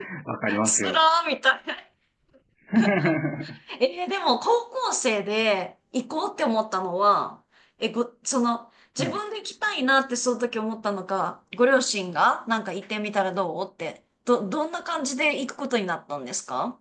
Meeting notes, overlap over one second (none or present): none